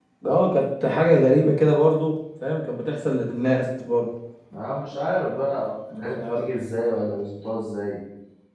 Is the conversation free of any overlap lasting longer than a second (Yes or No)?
Yes